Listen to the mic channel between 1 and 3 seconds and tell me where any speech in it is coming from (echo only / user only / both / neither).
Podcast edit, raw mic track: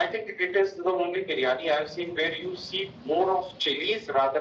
echo only